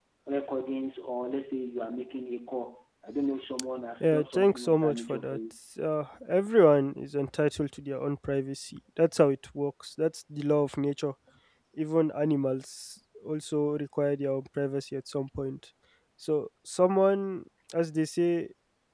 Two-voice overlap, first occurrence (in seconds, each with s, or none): 4.0 s